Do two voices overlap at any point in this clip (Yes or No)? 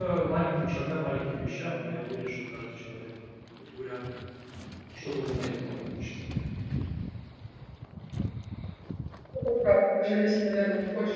No